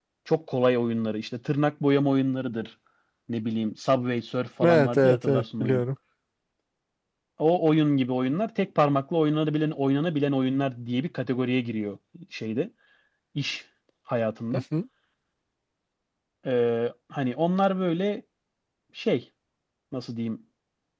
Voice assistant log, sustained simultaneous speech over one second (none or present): present